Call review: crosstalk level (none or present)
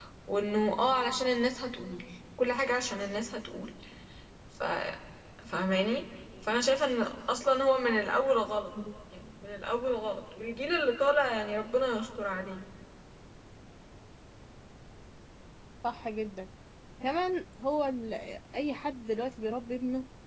none